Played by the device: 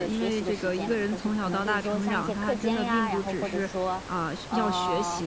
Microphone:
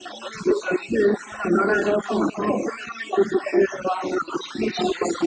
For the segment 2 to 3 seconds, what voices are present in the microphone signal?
echo only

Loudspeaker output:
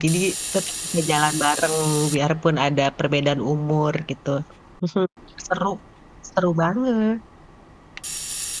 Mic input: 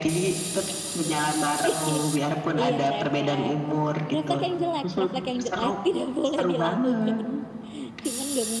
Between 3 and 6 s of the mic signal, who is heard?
both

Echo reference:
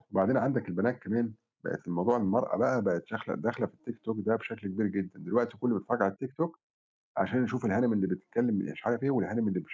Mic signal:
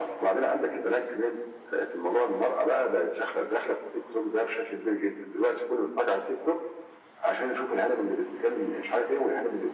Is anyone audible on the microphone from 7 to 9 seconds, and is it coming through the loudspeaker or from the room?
echo only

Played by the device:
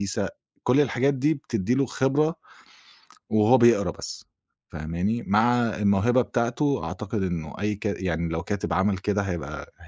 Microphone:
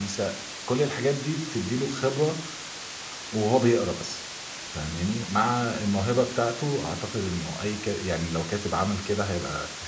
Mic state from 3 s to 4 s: echo only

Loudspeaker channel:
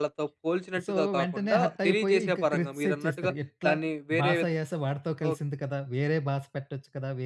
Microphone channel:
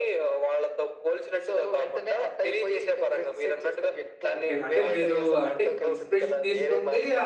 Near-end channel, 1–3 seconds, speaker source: echo only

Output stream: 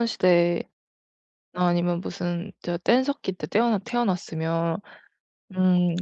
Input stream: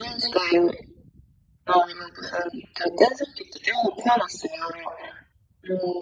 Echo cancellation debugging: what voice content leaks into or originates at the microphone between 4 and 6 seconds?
echo only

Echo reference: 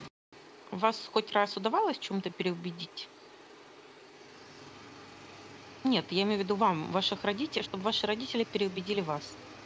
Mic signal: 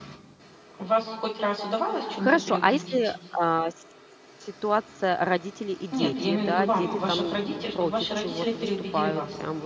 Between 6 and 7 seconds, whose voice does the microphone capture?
both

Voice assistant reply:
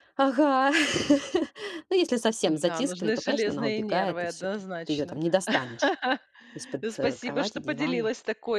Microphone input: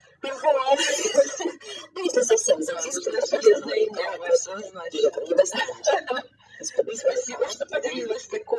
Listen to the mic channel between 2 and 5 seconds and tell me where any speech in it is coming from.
echo only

